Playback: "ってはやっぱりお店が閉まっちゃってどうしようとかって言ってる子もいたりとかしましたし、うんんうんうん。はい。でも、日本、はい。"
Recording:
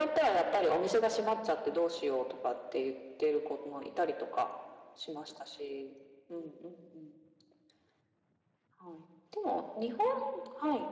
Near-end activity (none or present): none